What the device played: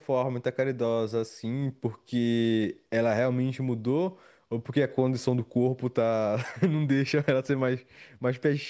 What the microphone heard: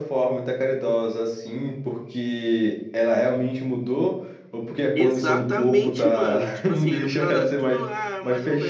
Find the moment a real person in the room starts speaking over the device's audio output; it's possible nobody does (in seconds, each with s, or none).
4.9 s